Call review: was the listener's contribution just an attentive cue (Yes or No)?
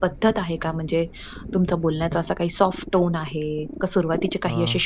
Yes